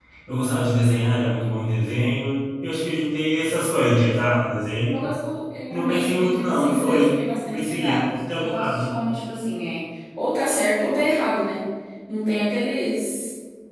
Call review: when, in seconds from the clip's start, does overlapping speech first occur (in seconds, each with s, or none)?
5.7 s